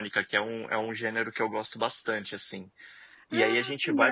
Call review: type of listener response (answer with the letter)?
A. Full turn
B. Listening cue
B